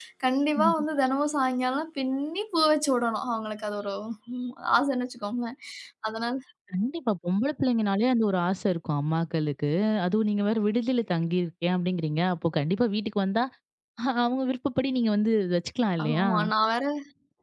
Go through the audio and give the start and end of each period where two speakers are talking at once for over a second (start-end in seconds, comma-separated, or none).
none